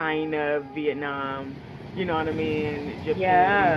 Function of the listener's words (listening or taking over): listening